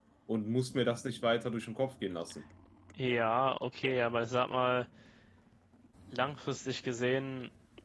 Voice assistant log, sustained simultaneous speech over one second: none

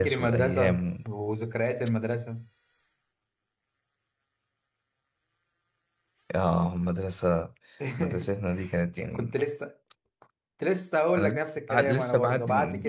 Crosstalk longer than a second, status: present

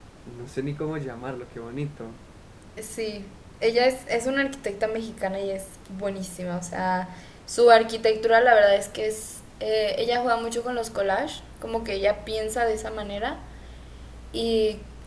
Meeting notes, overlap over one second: none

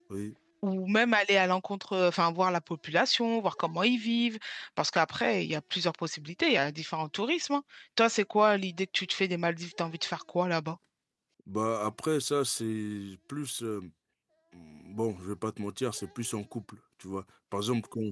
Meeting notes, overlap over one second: none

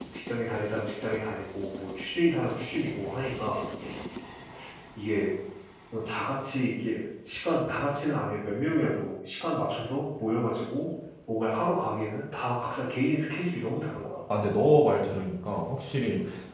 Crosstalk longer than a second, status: none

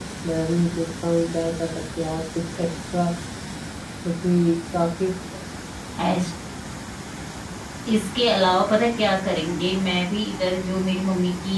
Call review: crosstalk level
none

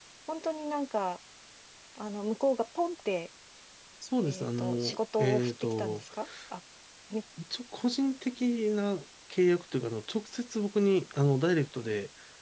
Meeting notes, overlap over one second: present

